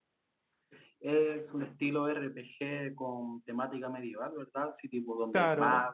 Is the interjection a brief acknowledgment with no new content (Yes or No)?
No